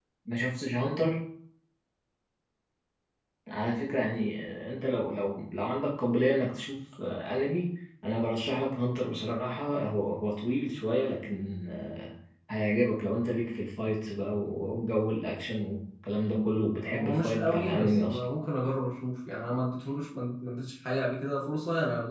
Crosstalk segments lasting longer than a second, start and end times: 16.8-18.2

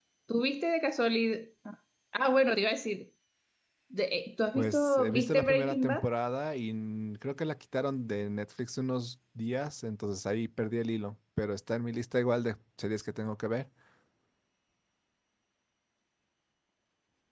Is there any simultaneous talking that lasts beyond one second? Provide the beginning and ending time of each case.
4.5-6.1

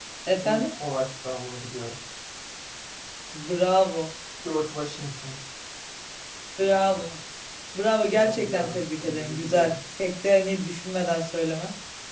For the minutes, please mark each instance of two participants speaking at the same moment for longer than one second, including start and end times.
8.1-9.8

